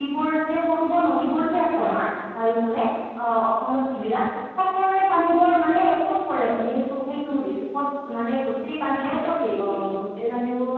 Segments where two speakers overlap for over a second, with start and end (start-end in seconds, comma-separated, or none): none